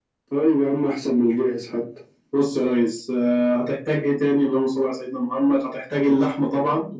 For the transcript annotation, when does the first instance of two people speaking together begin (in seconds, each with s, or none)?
none